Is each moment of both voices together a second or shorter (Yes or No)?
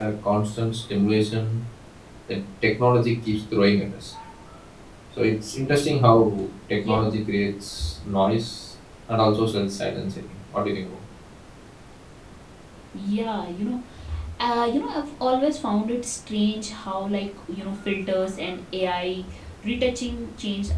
Yes